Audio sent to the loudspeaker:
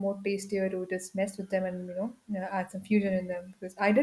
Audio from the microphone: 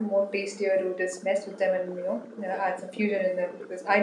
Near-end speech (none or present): none